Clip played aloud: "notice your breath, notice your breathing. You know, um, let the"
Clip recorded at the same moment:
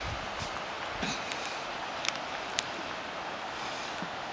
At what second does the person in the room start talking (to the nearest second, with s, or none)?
none